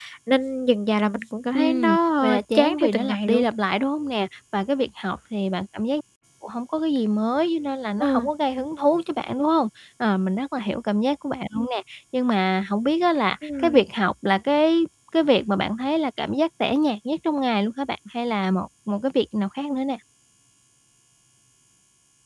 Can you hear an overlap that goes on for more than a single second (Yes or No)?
Yes